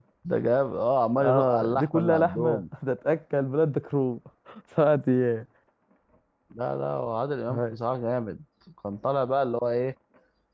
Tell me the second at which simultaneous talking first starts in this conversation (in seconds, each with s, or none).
1.2 s